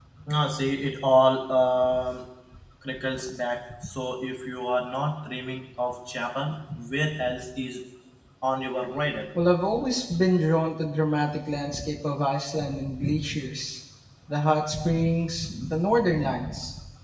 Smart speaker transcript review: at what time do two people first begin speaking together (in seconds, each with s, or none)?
none